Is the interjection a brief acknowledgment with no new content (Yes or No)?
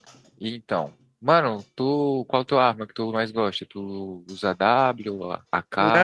No